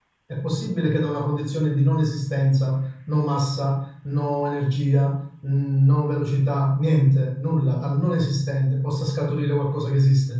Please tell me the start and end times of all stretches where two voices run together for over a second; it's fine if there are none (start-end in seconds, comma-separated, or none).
none